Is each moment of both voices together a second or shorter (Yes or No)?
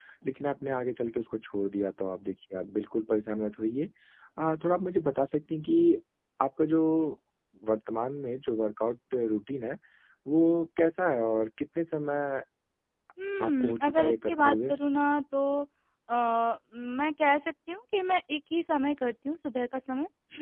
No